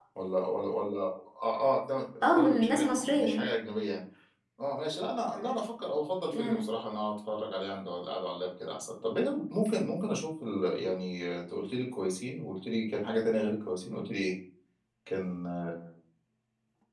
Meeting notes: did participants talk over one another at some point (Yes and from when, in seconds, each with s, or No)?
Yes, from 2.2 s